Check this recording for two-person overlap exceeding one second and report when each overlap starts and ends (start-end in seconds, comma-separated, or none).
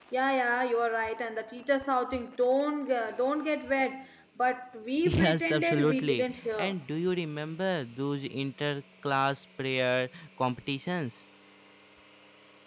5.0-6.7